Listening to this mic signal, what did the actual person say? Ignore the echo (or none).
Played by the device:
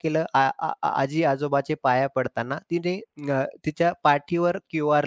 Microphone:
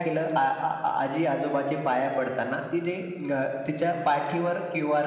none